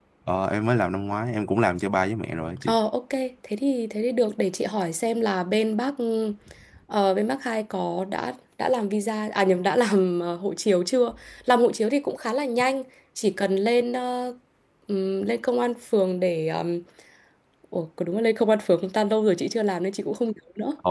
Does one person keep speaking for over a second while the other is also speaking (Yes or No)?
No